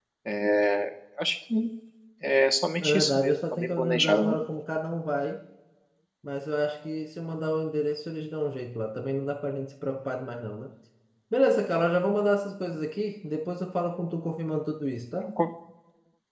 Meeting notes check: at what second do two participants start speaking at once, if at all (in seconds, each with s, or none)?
2.8 s